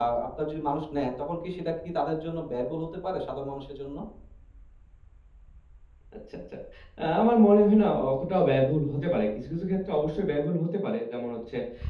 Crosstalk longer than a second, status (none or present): none